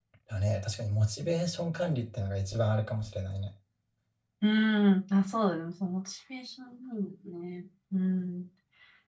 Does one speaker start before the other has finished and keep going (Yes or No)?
No